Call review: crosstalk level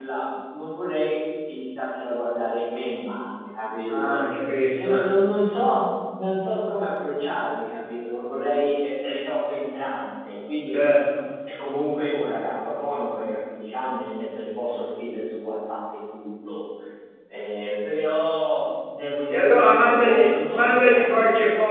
present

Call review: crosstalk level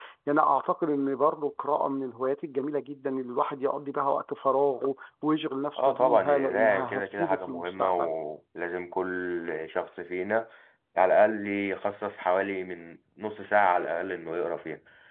present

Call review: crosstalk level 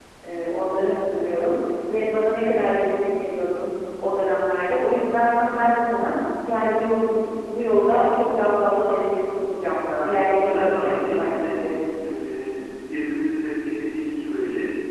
present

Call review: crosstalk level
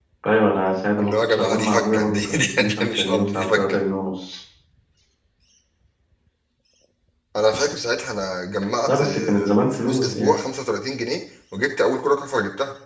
present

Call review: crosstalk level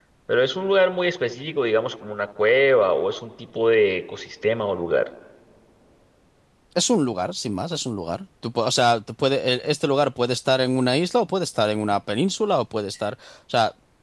none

